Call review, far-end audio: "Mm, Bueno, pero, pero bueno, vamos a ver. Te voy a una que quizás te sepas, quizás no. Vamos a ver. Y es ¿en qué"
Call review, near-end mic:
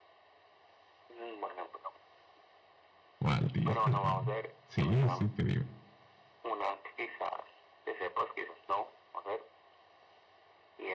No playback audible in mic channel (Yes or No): No